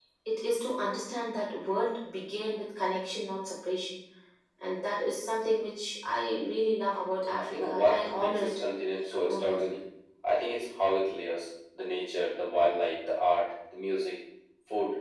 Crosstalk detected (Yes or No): Yes